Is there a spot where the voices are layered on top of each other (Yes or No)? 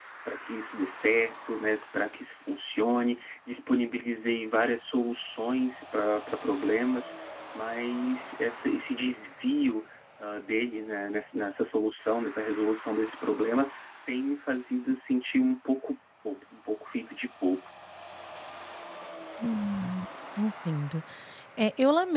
No